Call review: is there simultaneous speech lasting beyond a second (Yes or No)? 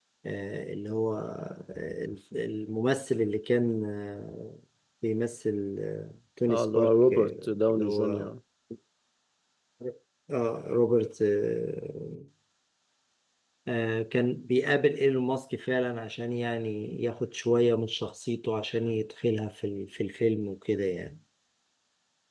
Yes